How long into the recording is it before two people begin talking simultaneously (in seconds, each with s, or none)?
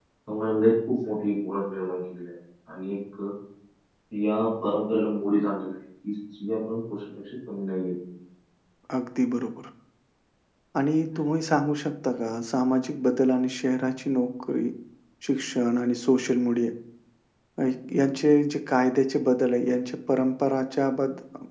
none